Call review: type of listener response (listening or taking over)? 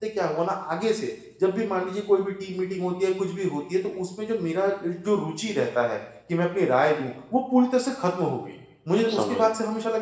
listening